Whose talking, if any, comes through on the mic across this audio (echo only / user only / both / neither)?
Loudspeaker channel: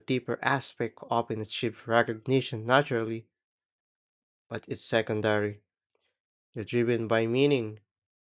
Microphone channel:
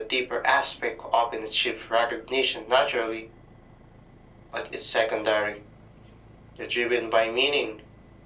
echo only